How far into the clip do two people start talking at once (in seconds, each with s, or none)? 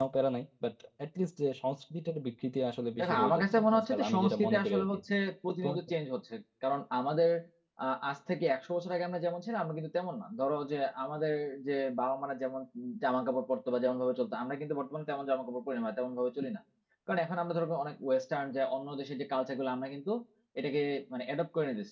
3.0 s